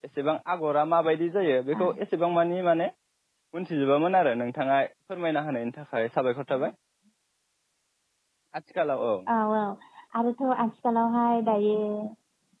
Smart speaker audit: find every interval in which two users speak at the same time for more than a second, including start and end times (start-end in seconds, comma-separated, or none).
none